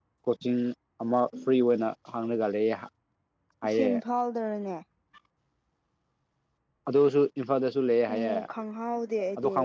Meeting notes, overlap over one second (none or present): none